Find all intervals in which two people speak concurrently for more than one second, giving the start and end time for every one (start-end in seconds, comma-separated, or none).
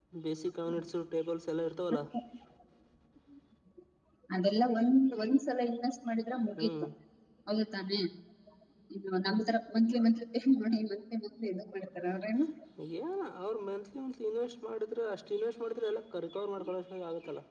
none